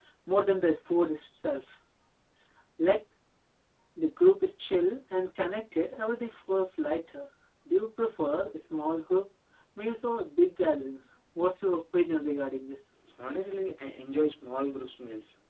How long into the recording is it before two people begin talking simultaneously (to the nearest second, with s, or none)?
none